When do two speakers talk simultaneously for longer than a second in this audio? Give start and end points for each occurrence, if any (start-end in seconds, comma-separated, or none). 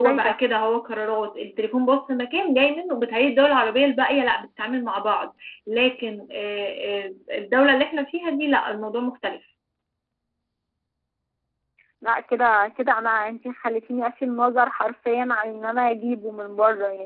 none